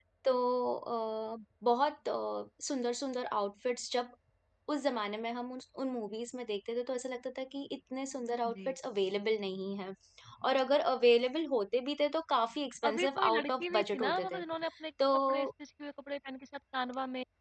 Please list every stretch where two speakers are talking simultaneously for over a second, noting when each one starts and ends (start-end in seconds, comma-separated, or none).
12.9-14.4